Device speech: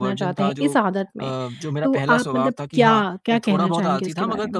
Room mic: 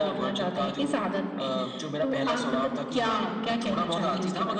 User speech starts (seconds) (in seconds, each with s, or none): none